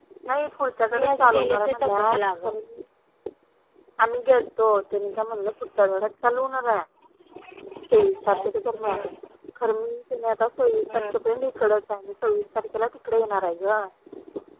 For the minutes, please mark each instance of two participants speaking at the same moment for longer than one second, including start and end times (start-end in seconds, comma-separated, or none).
0.9-2.5